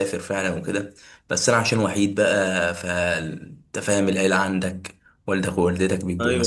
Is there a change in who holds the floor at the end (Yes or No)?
No